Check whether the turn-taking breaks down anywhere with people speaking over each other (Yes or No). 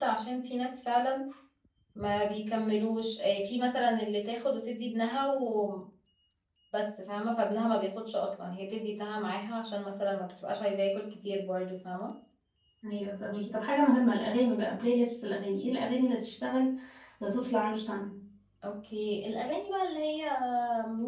No